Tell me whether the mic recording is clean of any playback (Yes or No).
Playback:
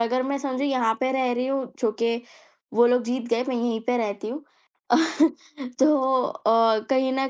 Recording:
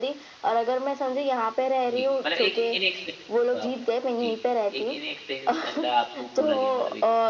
No